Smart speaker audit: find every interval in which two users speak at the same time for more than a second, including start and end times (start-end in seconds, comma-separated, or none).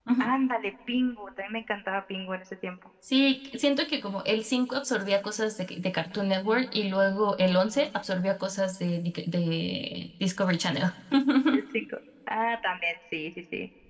none